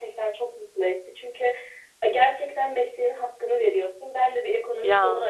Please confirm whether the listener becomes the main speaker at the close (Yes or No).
No